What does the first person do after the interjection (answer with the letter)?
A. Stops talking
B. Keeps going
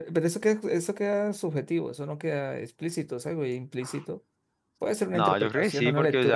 A